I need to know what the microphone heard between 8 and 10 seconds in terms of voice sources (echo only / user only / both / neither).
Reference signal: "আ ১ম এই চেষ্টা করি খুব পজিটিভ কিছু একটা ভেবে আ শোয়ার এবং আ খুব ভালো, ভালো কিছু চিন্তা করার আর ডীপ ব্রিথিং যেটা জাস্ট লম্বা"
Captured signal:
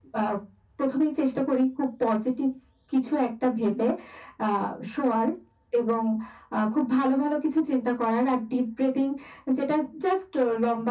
echo only